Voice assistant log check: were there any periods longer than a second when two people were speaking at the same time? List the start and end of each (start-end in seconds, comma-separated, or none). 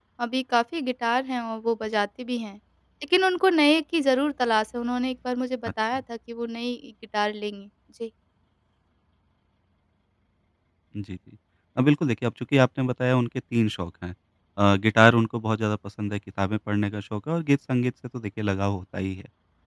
none